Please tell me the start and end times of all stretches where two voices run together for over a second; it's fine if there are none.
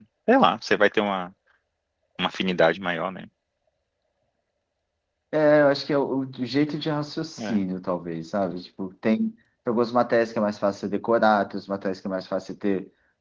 none

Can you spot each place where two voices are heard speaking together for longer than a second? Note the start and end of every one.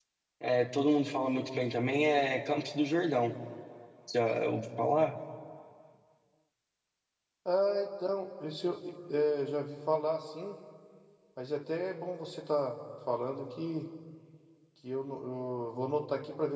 none

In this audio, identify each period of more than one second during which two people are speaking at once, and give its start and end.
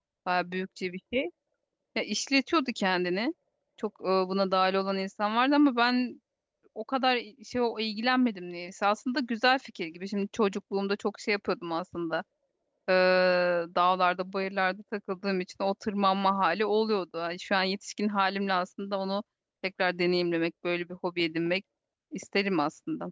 none

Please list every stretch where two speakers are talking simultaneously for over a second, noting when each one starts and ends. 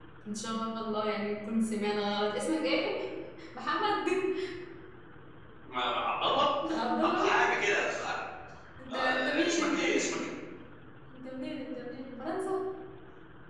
8.9-10.2

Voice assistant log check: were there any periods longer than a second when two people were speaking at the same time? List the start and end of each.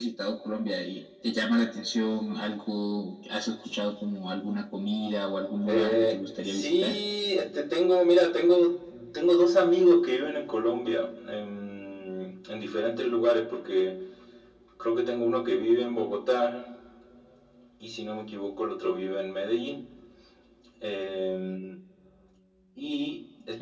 5.7-7.0

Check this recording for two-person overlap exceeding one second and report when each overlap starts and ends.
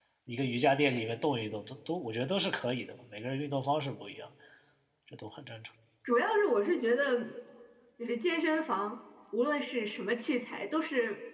none

